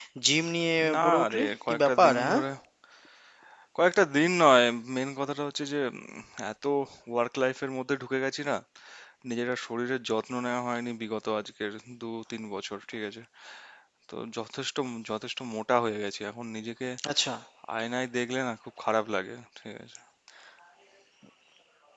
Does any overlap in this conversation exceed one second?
Yes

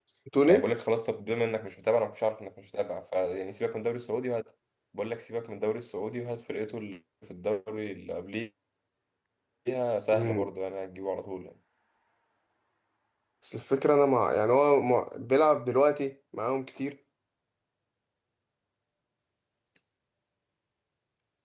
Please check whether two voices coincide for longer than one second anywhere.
No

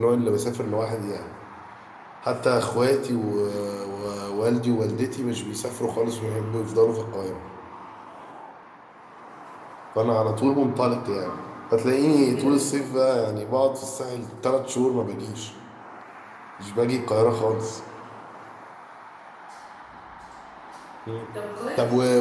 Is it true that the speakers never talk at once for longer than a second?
Yes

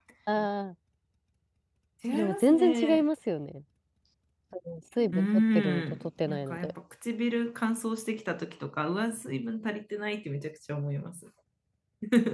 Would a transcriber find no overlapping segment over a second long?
No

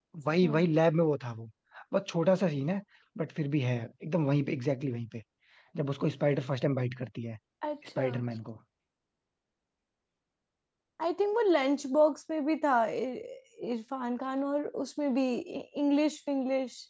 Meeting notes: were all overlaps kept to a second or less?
Yes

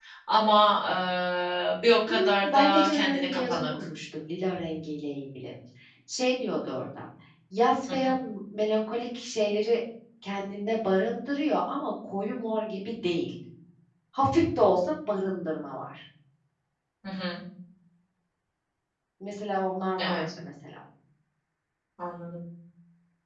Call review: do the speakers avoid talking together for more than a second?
No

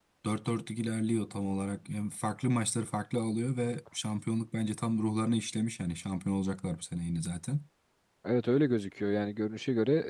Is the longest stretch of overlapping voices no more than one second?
Yes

